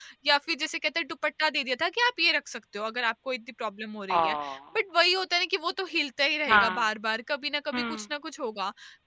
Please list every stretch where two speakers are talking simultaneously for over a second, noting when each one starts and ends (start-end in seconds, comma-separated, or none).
none